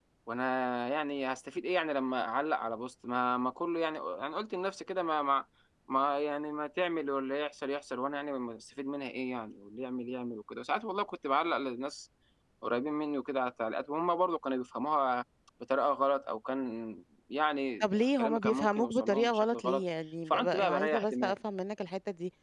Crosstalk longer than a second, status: present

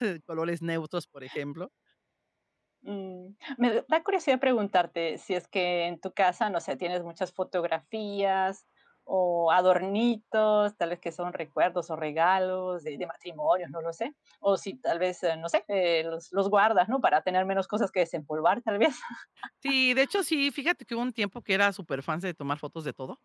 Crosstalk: none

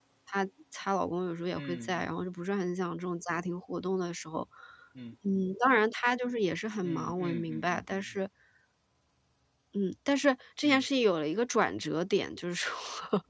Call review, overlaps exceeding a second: present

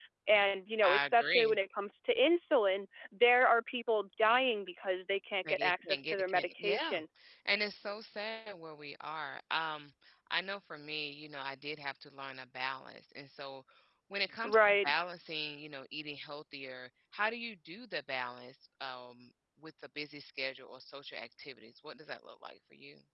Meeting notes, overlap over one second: present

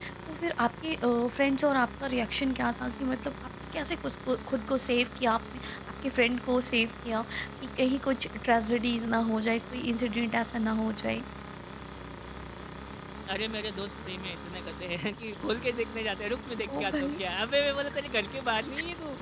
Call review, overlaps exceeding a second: none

